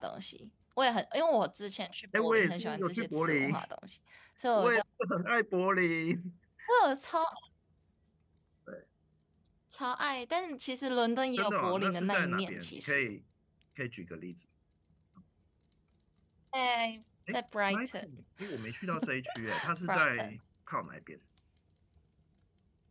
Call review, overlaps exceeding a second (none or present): present